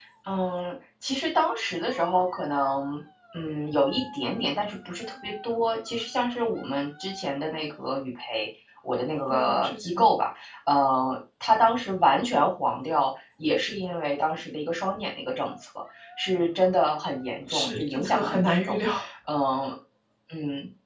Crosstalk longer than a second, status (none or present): present